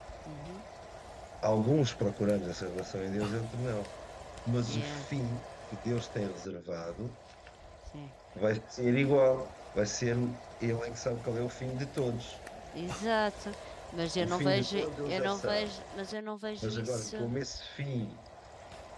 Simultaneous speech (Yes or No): Yes